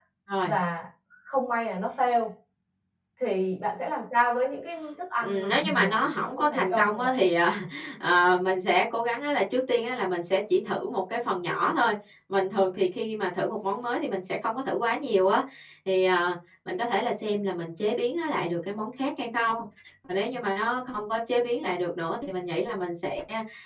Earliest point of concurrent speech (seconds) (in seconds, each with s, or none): 5.2 s